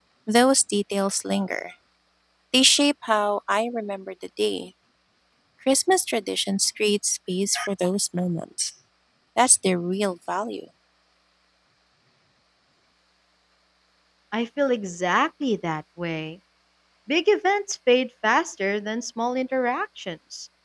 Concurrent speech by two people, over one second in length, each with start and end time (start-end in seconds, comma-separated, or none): none